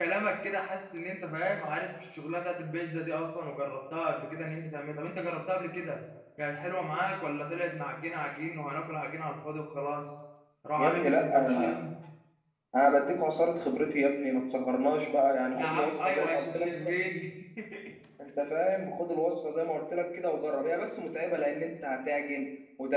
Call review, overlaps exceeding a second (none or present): present